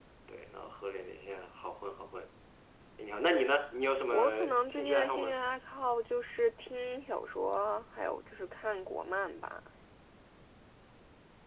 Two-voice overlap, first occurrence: 4.1 s

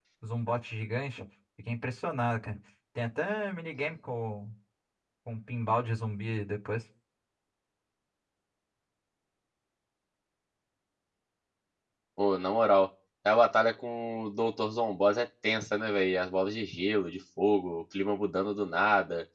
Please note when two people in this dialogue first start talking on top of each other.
none

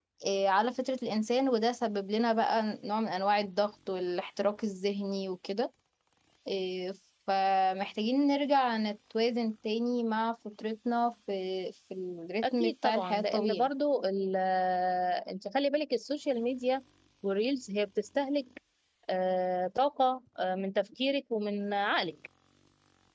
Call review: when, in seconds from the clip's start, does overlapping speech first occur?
12.4 s

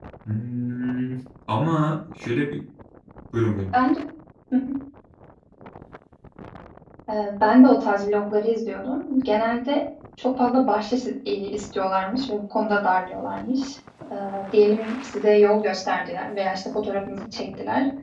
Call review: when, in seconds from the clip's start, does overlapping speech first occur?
none

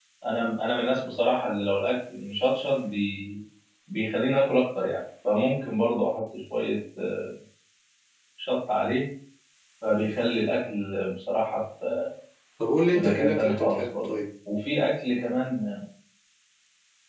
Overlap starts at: 12.9 s

